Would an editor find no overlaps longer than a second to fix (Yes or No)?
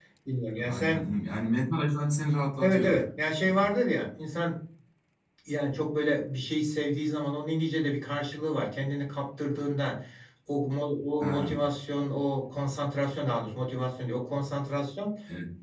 Yes